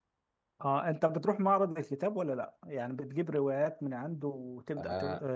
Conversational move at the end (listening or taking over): taking over